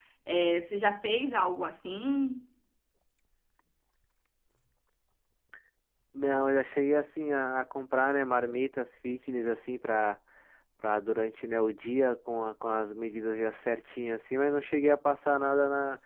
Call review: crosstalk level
none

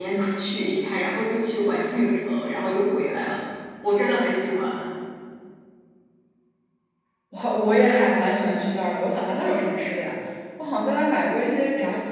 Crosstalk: none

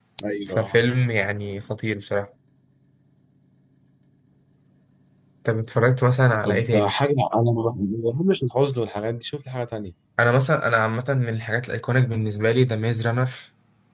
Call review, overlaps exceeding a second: none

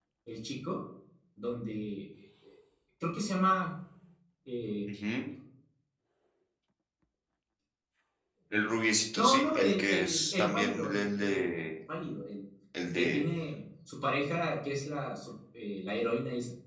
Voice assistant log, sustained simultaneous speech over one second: present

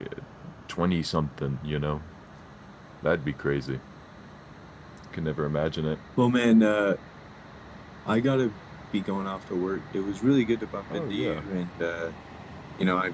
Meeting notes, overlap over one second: none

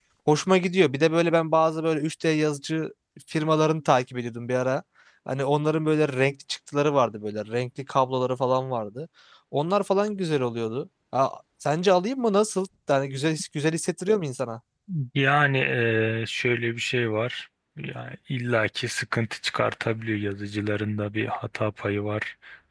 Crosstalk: none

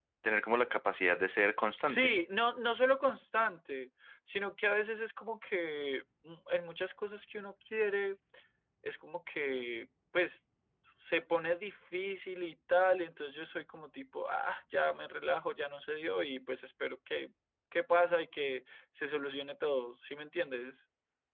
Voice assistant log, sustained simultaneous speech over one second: none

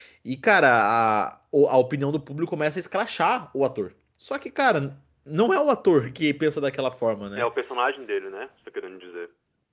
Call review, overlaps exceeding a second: none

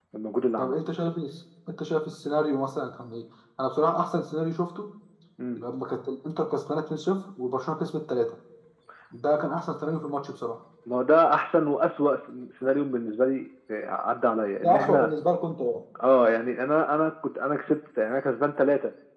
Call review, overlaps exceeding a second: none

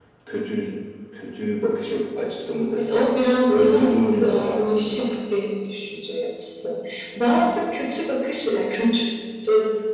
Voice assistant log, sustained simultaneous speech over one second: present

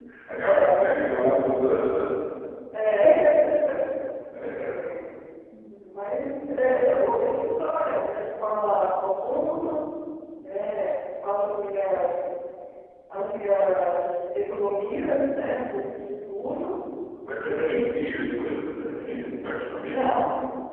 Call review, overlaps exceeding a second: present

